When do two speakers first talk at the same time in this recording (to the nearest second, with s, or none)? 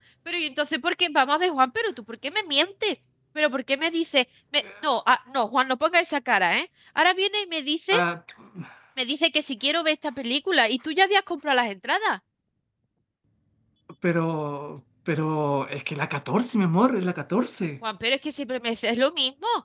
none